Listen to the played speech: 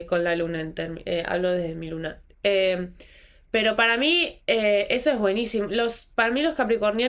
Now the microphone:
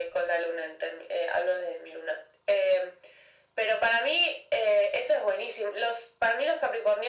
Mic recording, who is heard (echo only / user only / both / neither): echo only